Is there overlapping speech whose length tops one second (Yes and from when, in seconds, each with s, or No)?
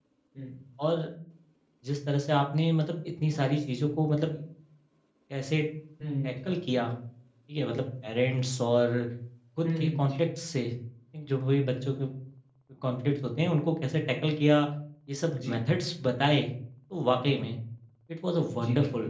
No